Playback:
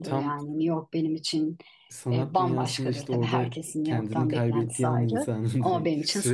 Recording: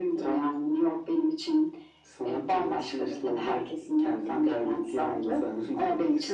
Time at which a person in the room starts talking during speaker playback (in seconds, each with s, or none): none